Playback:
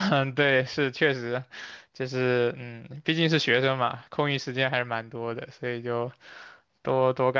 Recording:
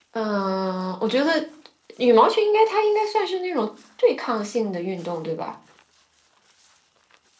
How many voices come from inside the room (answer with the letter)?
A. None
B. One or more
B